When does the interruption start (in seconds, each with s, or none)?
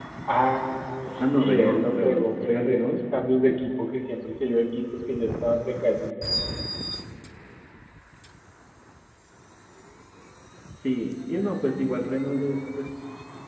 1.2 s